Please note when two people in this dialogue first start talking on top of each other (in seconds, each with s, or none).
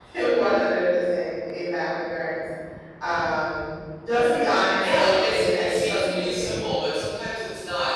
4.8 s